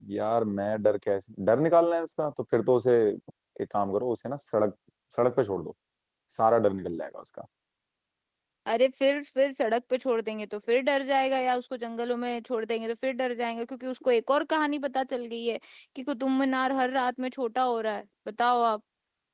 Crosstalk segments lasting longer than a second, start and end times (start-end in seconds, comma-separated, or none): none